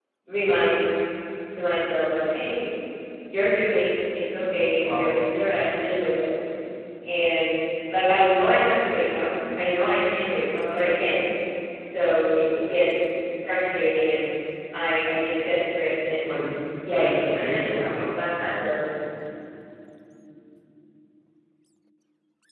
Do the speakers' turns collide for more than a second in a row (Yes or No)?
Yes